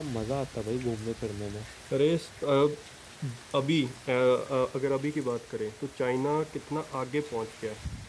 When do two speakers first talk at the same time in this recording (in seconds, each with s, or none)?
none